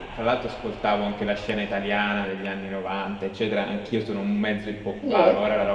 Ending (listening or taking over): listening